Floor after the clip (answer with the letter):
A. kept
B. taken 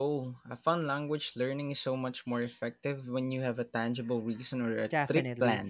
B